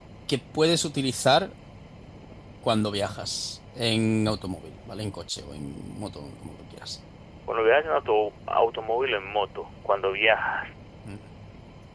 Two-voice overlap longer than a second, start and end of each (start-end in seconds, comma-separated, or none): none